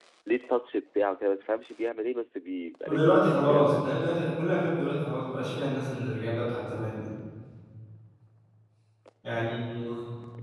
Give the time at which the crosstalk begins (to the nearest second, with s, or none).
3 s